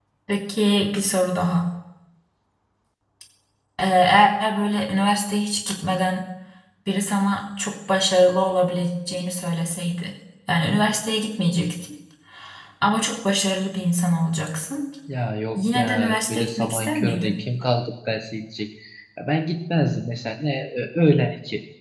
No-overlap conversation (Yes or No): No